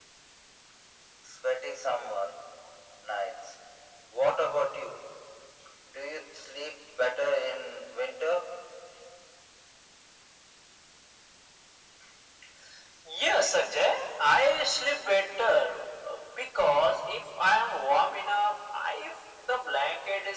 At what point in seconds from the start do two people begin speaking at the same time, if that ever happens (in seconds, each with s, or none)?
none